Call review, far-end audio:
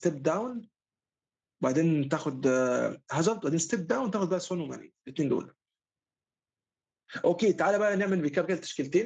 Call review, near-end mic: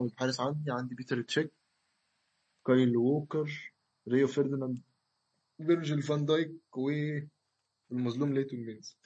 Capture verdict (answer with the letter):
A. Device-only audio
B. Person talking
B